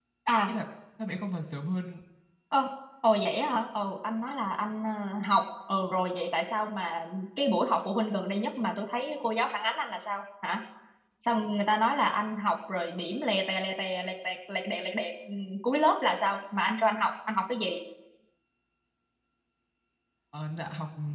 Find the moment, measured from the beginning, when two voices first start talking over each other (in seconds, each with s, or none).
none